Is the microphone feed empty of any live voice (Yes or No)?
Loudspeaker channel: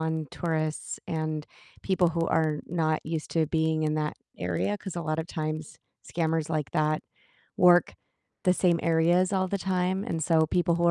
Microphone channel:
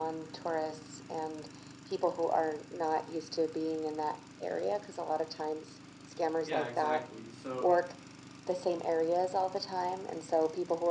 No